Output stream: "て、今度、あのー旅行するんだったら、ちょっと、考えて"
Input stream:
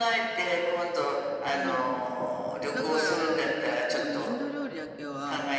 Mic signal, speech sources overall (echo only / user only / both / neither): both